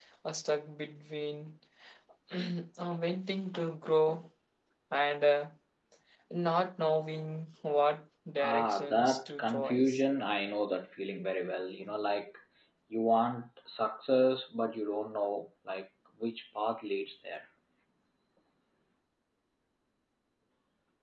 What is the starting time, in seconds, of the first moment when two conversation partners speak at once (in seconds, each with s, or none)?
8.4 s